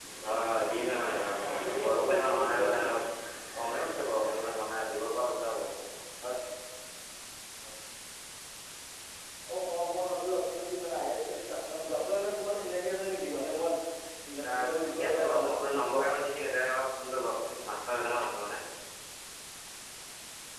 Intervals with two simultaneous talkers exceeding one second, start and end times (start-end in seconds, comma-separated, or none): 1.4-3.0, 14.4-16.0